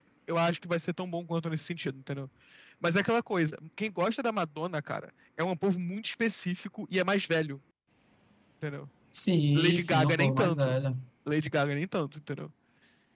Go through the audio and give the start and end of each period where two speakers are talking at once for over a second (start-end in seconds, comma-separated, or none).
9.6-10.8